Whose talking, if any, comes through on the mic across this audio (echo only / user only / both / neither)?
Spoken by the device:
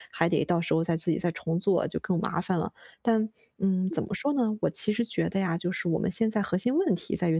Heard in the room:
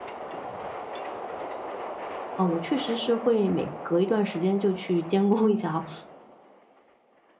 user only